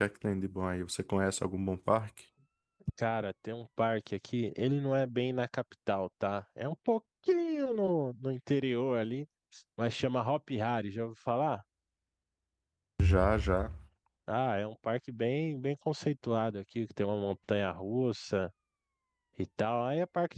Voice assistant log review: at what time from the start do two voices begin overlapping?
none

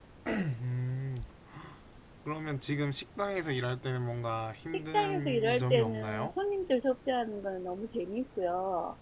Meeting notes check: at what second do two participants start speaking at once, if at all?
4.7 s

